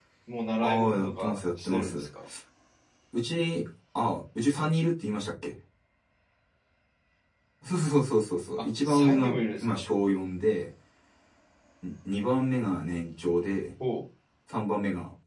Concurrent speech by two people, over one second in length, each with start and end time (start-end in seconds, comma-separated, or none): 0.6-2.1, 8.6-9.8